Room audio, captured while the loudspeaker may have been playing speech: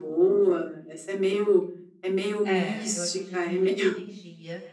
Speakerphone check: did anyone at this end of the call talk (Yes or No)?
Yes